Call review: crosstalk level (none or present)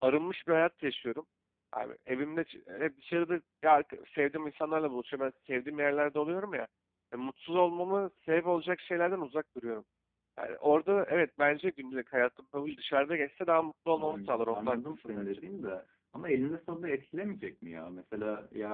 present